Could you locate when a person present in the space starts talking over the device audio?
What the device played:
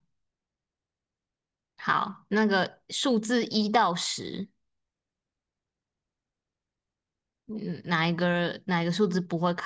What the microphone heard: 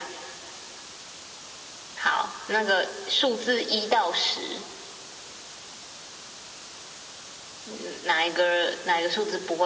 none

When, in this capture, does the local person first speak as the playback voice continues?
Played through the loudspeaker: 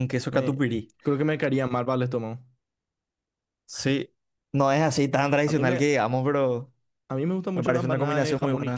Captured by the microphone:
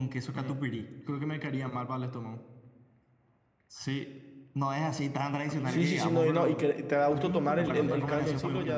5.6 s

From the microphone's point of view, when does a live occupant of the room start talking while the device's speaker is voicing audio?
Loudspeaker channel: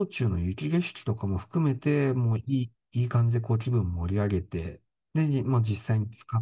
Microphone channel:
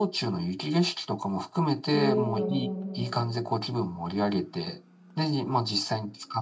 1.9 s

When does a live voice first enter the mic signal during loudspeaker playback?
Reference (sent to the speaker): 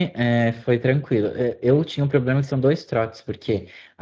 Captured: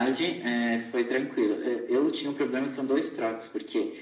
none

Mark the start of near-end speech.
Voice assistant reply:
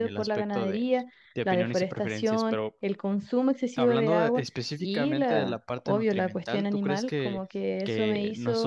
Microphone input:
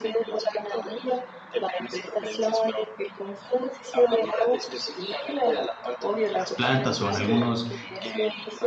6.3 s

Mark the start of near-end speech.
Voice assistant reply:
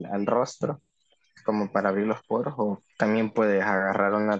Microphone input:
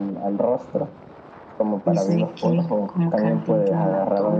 1.8 s

